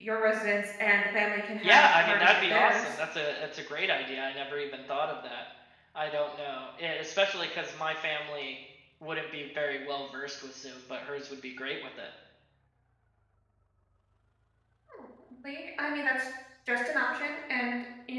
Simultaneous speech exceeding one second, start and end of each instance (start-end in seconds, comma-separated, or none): 1.6-2.8